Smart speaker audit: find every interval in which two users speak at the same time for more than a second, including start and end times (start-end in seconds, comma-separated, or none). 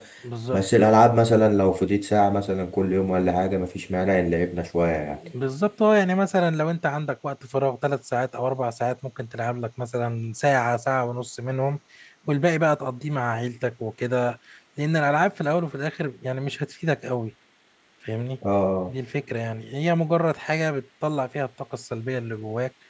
none